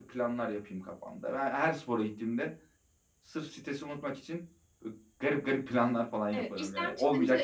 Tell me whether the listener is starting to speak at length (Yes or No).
Yes